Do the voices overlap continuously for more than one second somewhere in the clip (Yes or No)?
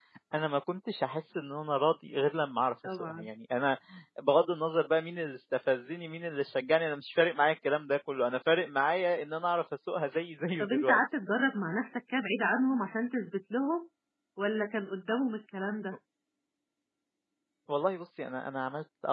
No